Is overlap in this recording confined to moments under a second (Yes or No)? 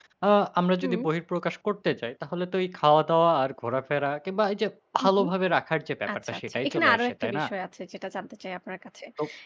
No